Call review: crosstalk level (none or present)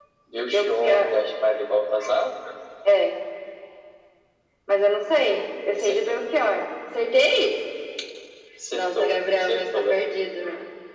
present